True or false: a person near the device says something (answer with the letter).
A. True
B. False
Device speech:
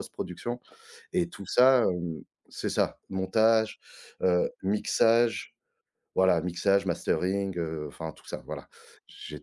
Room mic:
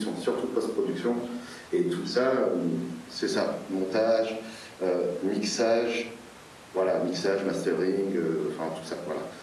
B